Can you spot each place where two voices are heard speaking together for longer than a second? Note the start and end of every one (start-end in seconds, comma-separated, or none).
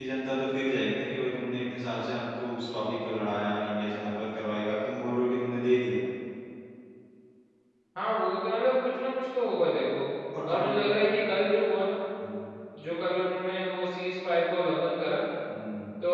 none